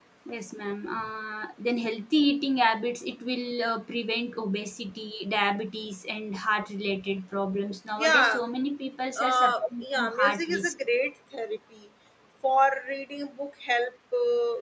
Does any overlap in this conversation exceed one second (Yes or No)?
Yes